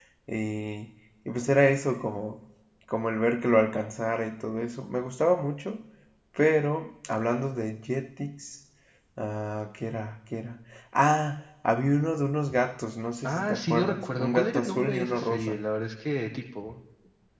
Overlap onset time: 13.2 s

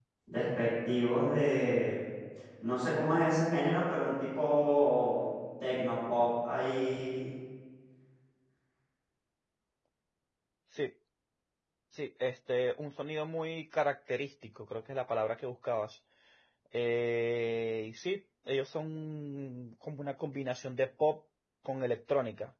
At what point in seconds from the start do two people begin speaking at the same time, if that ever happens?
none

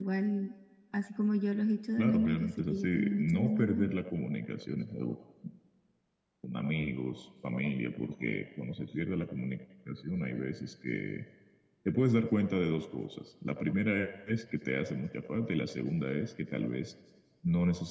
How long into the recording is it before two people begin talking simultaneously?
2.0 s

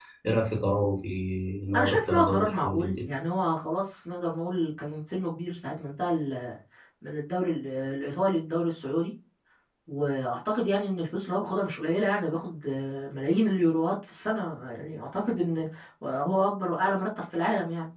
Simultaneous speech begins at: 1.8 s

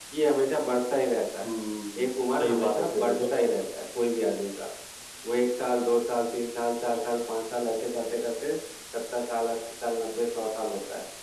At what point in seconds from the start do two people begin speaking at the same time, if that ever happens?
2.0 s

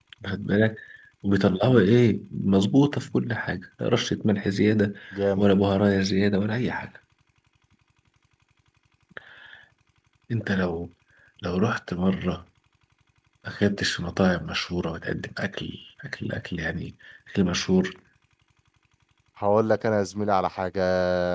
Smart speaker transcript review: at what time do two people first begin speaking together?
none

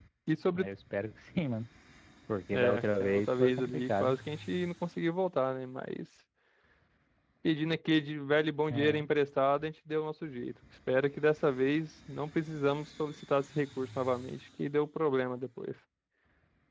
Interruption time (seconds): 2.5 s

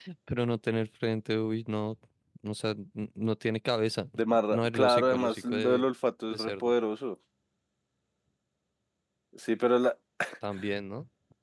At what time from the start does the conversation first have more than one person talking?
4.5 s

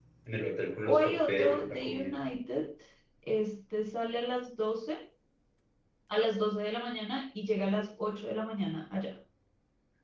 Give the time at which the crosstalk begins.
0.8 s

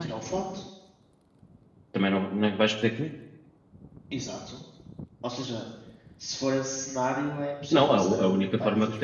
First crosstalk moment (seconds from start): 7.7 s

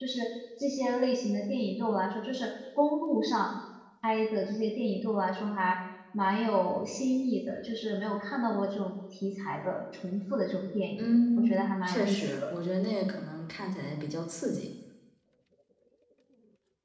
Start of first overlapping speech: 11.0 s

